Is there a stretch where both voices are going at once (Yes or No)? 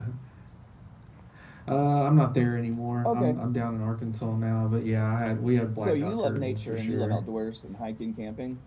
Yes